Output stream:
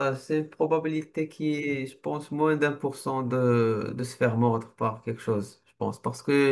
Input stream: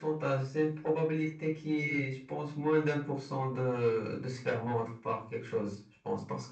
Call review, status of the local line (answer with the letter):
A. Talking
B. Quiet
B